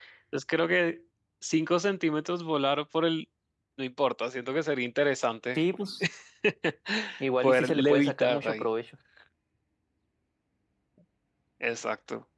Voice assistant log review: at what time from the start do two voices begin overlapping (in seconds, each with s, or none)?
7.4 s